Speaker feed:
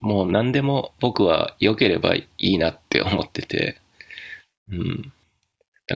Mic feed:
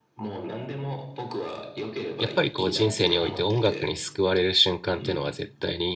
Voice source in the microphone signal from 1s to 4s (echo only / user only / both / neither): both